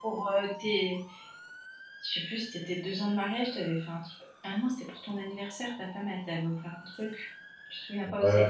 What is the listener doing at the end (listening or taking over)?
taking over